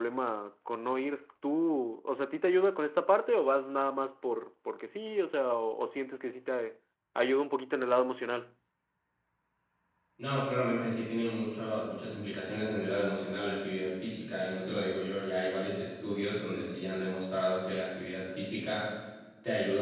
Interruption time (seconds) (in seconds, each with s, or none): none